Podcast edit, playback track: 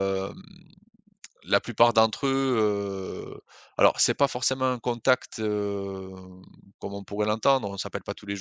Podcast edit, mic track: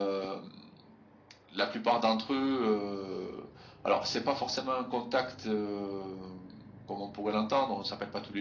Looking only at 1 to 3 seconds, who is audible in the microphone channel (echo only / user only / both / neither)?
echo only